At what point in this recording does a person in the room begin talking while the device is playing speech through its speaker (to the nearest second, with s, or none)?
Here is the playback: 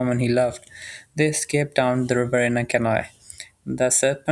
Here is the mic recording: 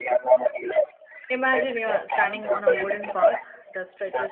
1 s